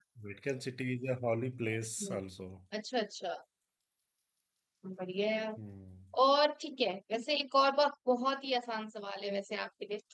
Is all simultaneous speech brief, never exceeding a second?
Yes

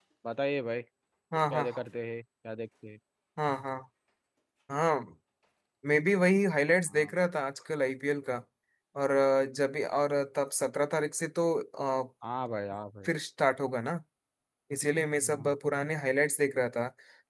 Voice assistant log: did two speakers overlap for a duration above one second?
No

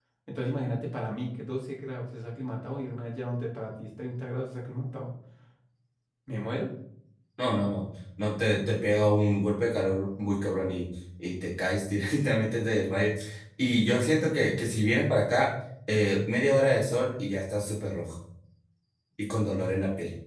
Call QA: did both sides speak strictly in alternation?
Yes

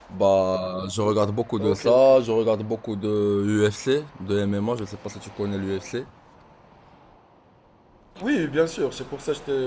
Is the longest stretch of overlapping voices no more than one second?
Yes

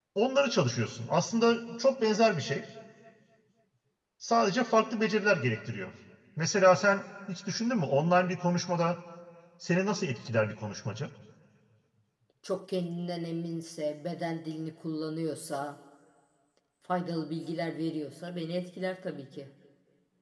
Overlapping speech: No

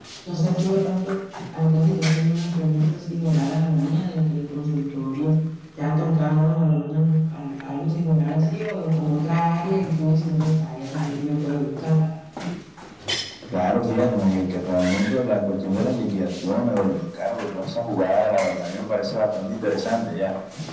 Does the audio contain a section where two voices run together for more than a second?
No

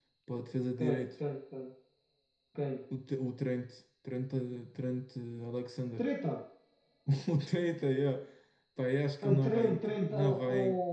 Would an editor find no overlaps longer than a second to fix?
No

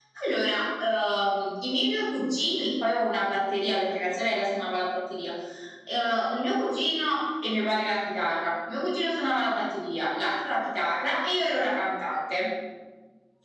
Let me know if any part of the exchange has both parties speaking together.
No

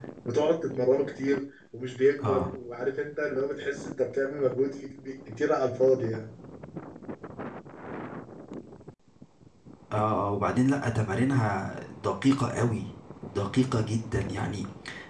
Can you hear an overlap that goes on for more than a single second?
No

